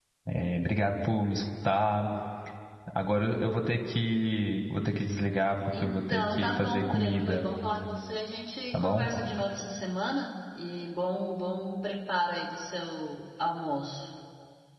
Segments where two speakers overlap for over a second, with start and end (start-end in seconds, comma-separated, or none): 5.7-7.4